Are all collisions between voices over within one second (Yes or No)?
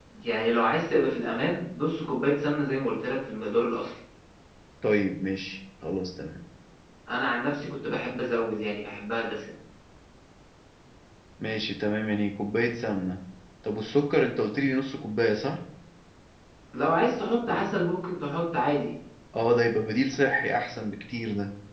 Yes